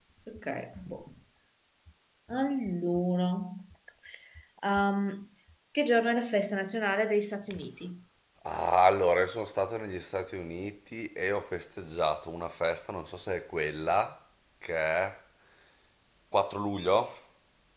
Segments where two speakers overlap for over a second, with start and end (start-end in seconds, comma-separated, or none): none